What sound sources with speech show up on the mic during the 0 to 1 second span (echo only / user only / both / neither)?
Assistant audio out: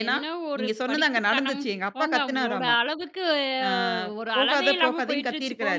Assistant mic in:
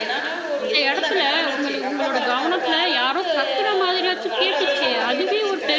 both